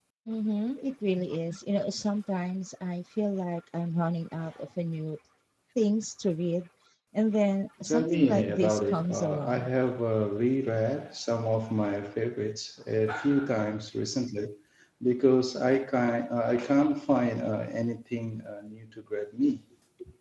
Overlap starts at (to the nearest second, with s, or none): 8 s